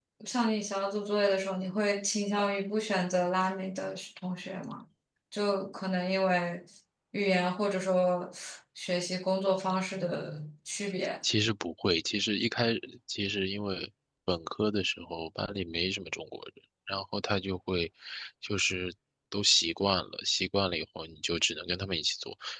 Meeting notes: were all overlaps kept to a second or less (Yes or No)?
Yes